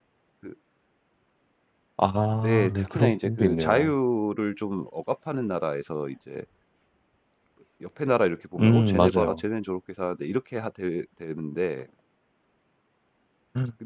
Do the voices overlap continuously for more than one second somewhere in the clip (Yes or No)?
Yes